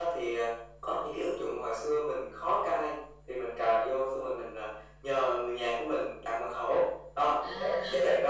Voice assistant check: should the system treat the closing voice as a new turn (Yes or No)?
No